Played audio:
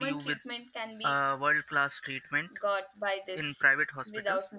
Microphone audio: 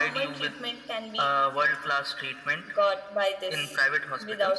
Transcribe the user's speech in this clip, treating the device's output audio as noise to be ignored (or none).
none